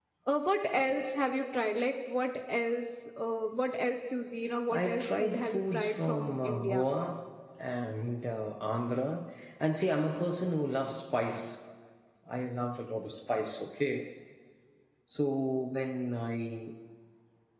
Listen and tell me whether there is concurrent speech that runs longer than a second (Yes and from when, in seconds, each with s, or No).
Yes, from 4.7 s